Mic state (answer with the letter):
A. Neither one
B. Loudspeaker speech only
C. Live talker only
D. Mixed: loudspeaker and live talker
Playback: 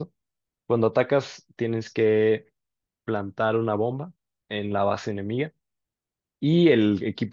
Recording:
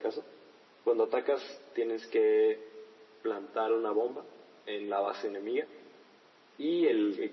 B